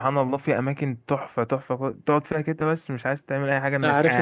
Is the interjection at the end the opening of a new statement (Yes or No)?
Yes